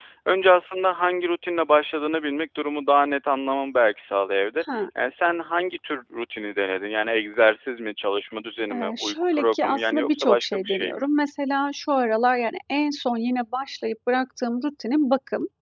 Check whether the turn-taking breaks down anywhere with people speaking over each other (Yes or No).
Yes